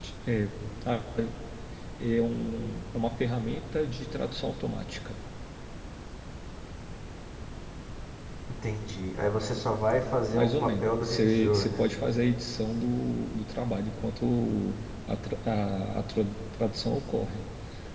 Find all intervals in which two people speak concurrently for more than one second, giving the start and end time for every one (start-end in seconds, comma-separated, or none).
10.3-11.8